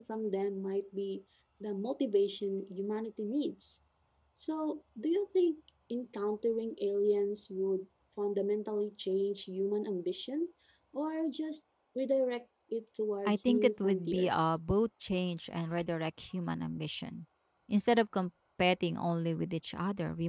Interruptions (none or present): present